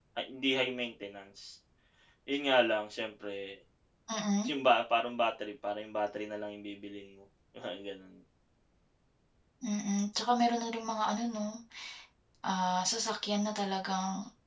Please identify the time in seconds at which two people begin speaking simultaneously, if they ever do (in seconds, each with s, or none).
none